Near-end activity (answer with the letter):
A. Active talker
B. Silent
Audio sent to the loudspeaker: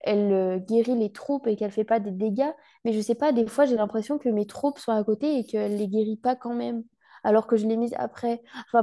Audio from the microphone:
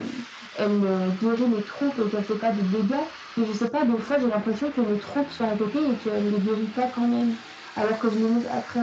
B